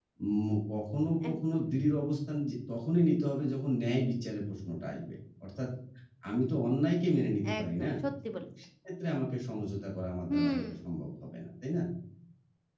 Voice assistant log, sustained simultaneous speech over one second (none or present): none